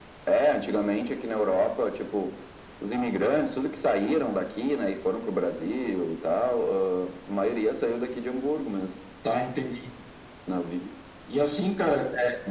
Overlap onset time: none

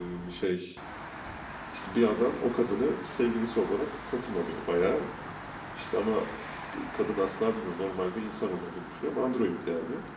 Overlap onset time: none

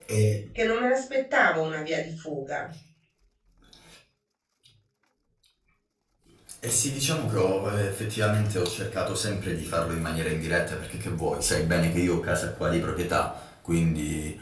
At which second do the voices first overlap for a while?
none

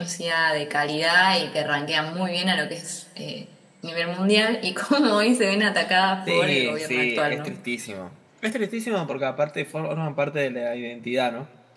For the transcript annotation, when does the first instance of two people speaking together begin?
6.3 s

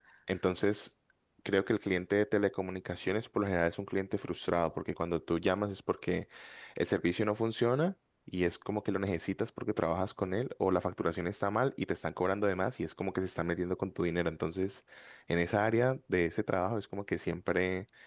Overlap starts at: none

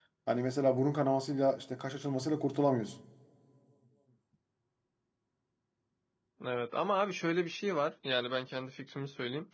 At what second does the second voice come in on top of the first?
none

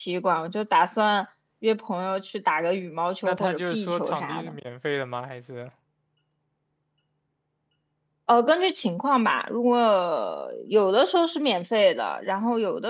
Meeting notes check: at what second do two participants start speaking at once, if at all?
3.2 s

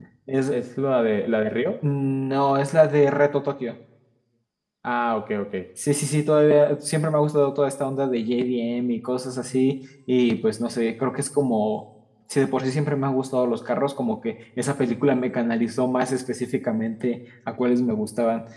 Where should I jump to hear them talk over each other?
none

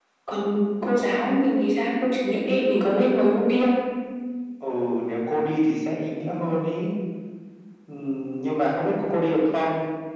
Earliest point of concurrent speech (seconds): none

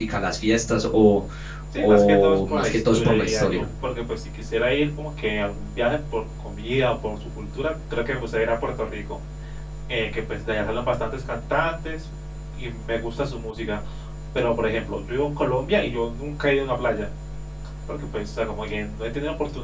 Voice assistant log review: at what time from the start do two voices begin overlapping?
1.8 s

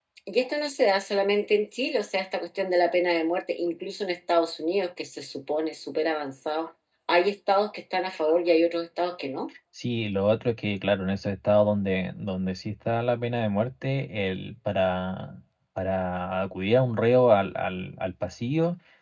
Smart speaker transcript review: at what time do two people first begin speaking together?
none

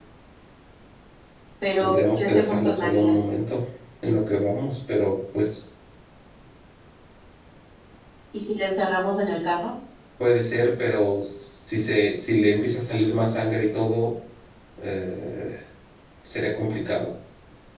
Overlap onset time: 1.8 s

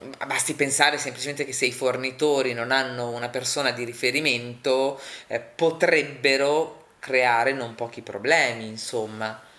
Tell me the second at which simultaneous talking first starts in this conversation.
none

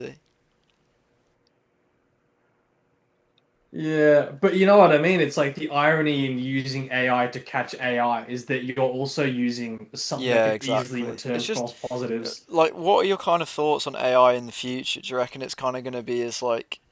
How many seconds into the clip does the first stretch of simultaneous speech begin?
10.2 s

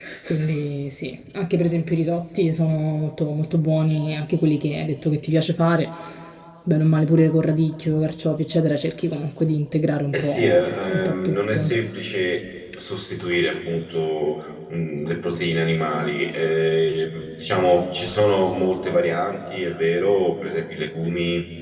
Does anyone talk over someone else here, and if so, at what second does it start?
10.1 s

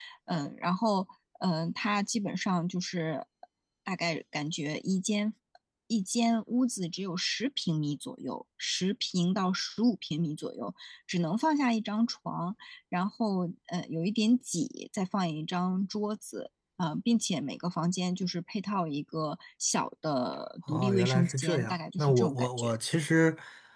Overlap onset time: 20.7 s

